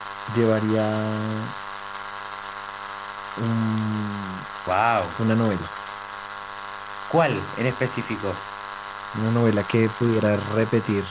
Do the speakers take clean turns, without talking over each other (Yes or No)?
Yes